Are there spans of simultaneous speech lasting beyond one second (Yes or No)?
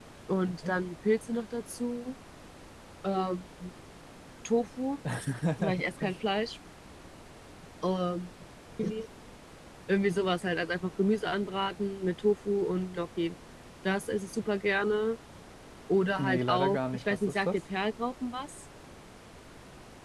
Yes